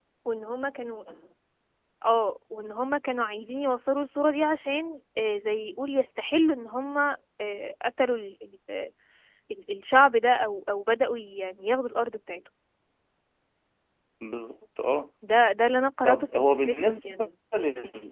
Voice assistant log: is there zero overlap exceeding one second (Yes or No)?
No